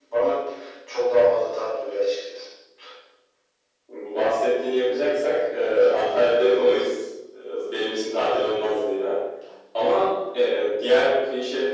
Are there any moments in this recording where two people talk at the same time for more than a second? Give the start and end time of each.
none

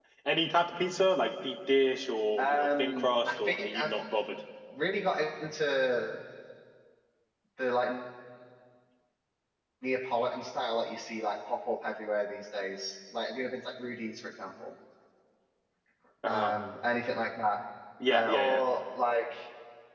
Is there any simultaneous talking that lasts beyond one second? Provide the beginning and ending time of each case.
2.4-3.9

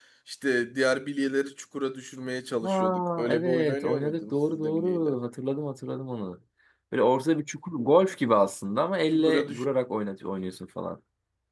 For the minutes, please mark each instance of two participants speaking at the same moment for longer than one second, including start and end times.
2.6-5.2

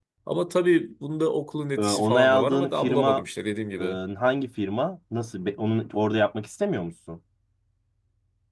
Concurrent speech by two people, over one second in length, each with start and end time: 1.8-3.2

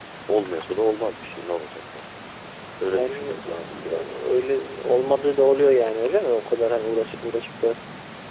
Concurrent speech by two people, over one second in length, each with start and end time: 2.9-4.1

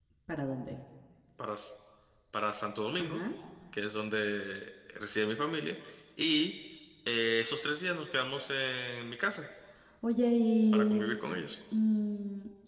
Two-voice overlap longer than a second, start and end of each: none

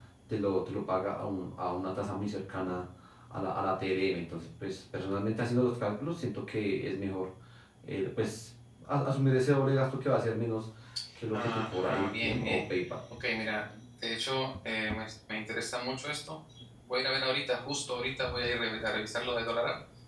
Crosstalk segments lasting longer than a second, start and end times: 11.3-12.6

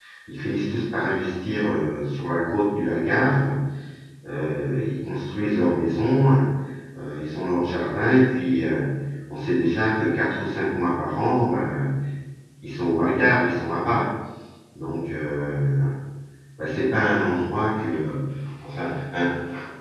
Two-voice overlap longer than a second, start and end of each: none

